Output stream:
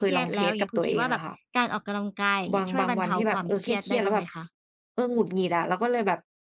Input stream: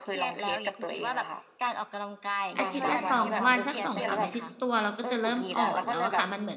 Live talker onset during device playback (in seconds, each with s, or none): 2.6 s